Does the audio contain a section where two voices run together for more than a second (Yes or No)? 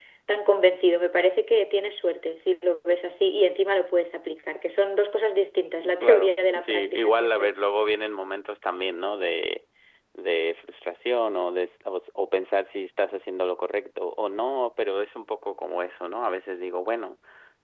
Yes